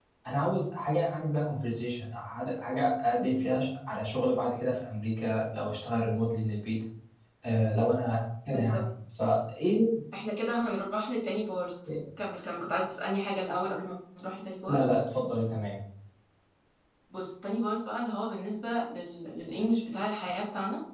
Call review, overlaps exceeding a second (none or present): none